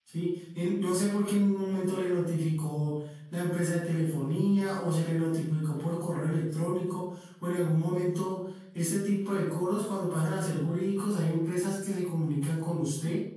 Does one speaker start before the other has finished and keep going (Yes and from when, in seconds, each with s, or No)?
No